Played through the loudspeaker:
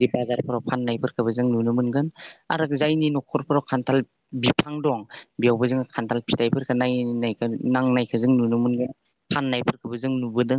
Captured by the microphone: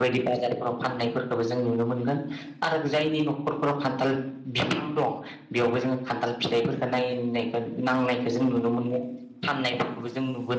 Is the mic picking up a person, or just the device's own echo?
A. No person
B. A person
A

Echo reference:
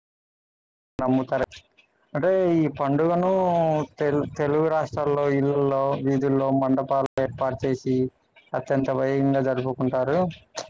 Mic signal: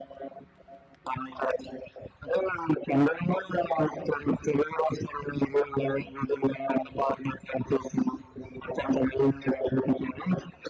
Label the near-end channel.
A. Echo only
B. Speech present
A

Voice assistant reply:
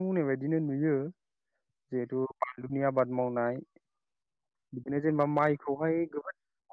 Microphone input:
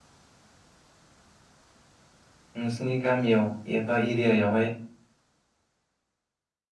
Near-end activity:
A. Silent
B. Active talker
B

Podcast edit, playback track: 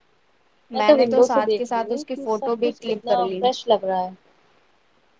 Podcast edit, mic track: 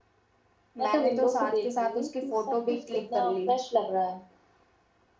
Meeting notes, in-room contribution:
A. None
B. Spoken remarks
A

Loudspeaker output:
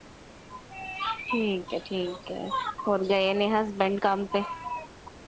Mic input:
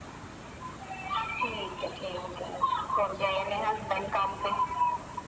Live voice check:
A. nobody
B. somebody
A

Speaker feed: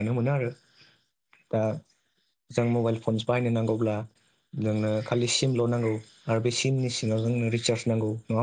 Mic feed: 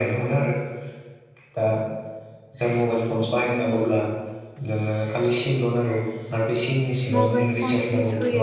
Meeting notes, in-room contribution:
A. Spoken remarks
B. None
A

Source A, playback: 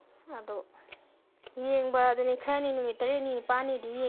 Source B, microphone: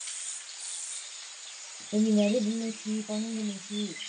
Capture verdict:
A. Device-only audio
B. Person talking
B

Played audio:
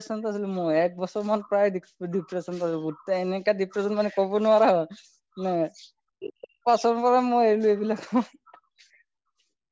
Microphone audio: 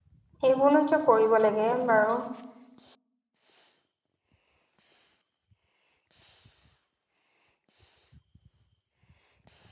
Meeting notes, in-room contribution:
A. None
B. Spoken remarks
B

